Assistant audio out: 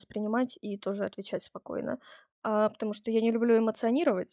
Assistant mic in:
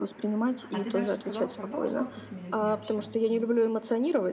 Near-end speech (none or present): present